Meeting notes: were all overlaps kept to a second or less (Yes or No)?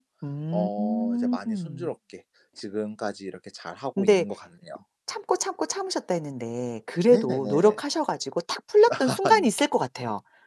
No